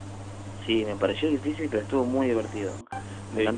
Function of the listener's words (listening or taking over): taking over